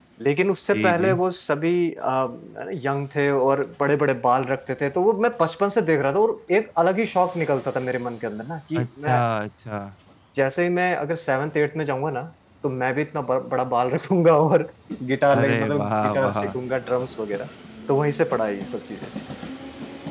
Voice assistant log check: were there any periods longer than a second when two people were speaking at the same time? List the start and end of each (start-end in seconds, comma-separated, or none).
15.3-16.6